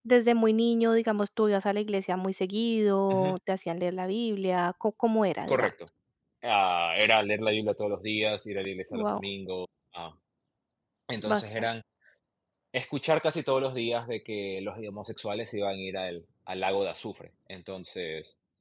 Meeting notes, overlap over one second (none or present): none